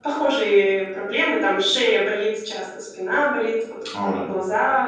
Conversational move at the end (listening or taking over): listening